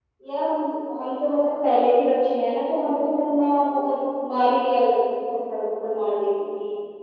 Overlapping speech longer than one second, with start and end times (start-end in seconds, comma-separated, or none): none